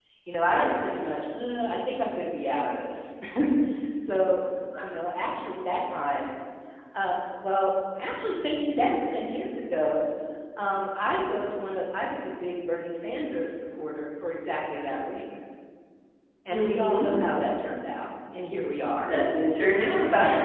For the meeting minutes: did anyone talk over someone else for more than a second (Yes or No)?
No